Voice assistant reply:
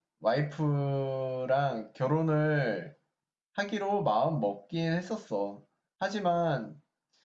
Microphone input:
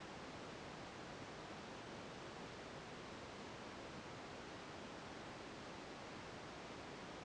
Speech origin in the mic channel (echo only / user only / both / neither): neither